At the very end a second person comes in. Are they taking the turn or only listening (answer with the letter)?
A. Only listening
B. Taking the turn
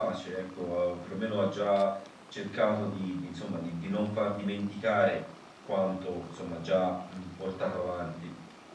A